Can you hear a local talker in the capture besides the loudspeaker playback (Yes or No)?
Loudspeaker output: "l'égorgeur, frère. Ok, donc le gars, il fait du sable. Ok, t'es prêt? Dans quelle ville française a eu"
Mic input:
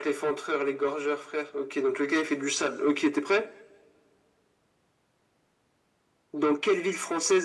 No